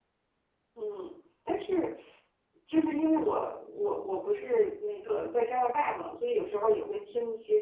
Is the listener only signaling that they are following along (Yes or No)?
Yes